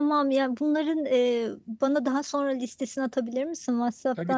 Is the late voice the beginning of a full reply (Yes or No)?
Yes